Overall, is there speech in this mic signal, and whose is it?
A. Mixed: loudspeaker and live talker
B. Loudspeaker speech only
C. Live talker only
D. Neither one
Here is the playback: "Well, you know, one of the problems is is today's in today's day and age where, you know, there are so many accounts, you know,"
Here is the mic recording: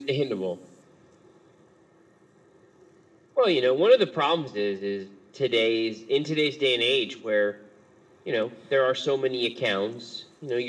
B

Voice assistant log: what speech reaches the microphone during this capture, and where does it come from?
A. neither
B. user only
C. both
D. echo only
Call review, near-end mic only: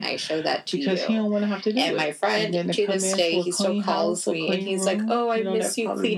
D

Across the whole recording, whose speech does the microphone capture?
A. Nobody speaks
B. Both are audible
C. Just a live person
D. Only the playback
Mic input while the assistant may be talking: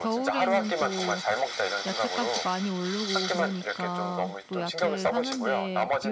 B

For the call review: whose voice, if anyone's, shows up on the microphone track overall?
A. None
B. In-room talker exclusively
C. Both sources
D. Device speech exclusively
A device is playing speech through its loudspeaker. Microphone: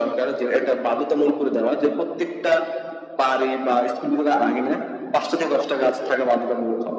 D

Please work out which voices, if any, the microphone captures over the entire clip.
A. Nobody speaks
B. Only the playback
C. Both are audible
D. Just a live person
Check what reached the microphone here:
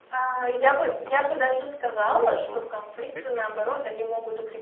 C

